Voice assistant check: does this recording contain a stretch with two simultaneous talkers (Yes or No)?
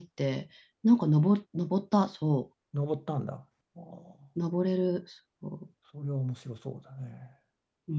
No